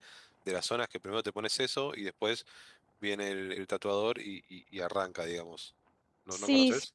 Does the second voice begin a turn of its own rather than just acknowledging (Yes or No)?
Yes